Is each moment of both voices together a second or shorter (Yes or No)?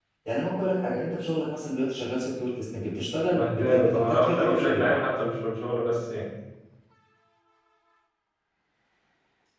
No